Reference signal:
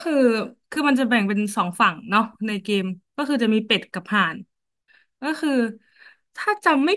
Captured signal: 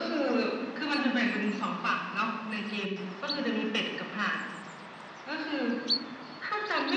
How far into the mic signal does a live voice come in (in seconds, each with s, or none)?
none